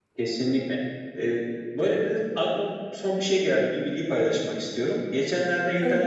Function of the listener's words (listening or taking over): listening